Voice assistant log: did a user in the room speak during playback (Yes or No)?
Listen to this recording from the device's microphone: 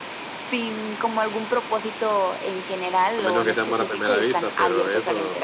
Yes